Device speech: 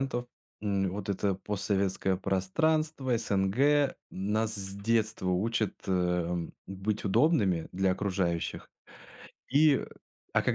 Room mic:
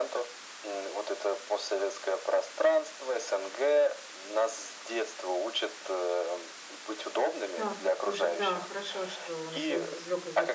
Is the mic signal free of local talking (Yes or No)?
No